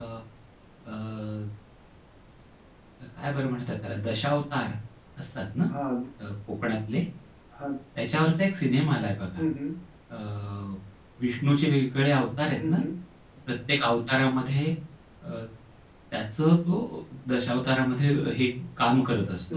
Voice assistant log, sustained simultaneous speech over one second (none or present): none